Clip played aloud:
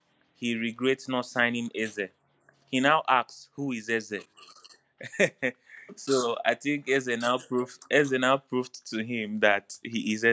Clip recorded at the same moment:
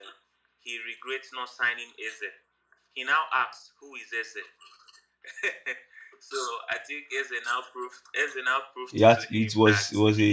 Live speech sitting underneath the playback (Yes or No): No